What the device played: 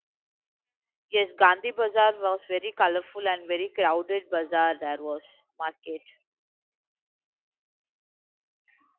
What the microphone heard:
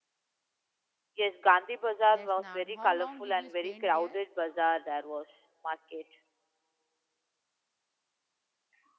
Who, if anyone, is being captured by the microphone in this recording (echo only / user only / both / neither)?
both